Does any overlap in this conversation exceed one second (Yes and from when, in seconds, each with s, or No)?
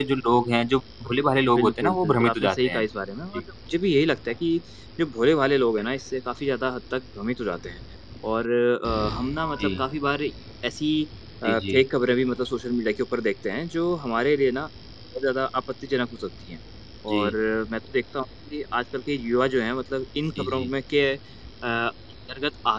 Yes, from 1.6 s